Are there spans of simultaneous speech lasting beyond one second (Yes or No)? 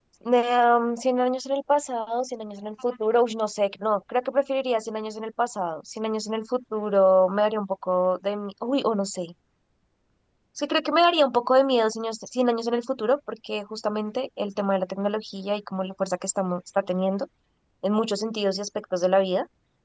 No